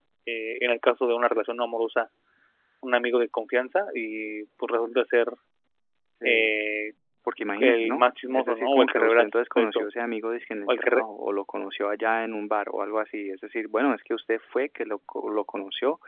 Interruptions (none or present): present